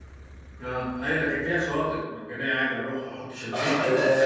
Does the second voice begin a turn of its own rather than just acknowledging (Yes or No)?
Yes